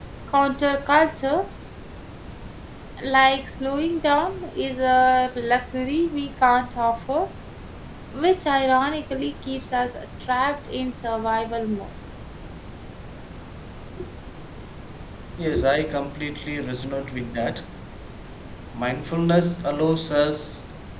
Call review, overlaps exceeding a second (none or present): none